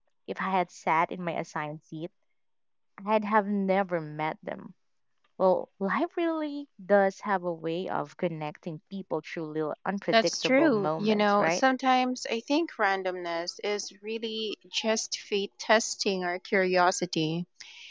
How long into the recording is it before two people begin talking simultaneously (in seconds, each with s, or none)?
10.1 s